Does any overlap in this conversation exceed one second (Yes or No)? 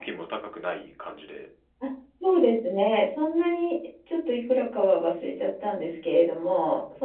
No